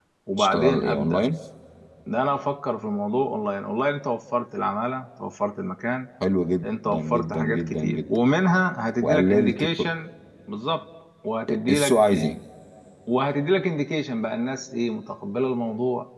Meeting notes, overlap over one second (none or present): present